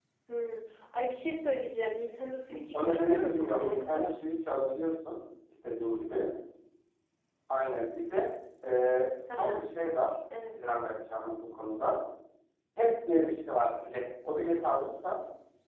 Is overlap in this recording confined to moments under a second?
No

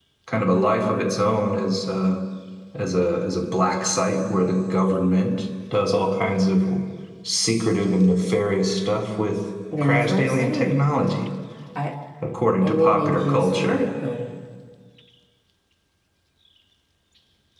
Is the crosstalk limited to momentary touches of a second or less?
No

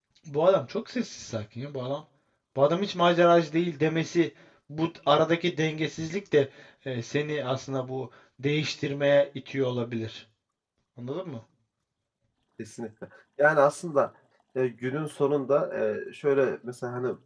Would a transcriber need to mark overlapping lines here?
No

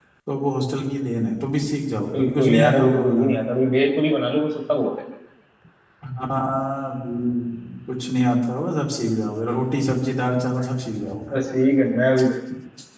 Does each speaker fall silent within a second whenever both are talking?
No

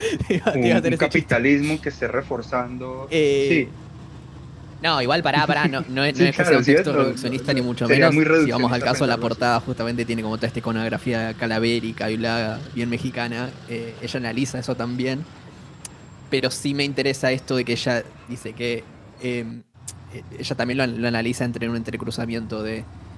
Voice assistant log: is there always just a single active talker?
No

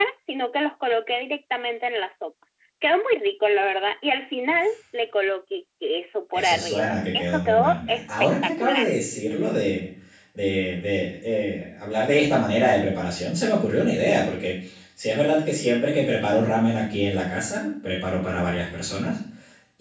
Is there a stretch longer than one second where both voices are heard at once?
Yes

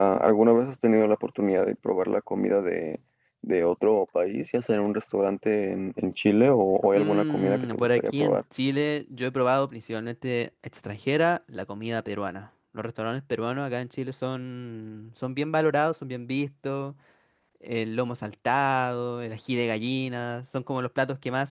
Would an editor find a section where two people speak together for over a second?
Yes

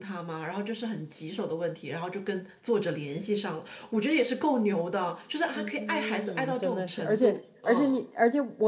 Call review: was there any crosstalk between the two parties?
Yes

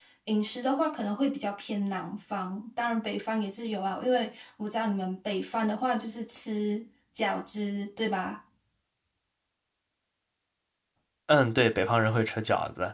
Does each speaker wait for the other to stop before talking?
Yes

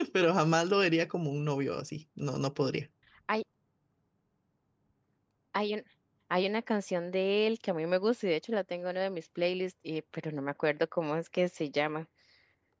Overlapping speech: No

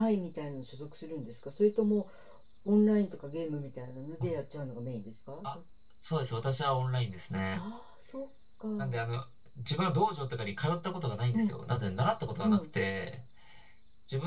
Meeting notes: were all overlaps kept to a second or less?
Yes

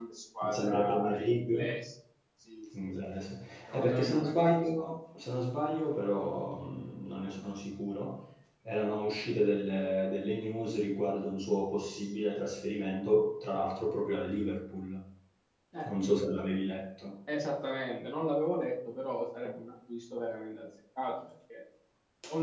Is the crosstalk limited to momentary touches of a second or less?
No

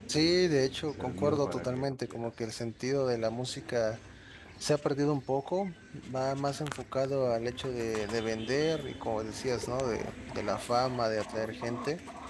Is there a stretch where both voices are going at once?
Yes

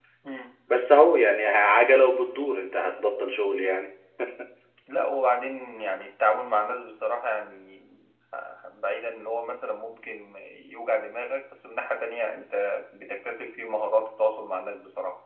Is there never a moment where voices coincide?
Yes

